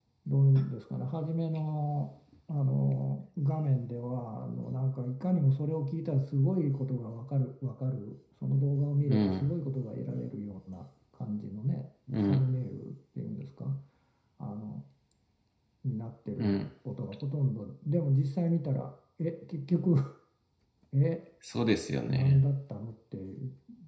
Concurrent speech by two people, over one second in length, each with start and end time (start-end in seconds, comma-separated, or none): none